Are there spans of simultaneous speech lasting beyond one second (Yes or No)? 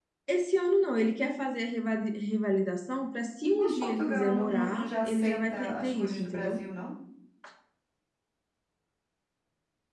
Yes